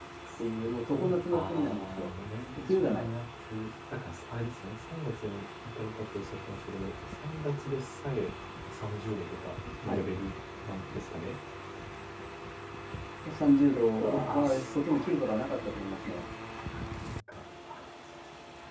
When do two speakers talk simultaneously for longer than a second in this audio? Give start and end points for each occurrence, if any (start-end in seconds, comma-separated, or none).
0.6-2.1, 14.0-15.4